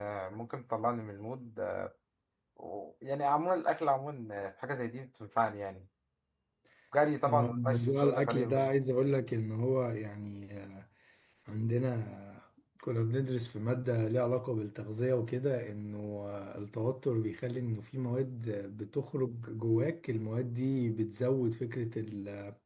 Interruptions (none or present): present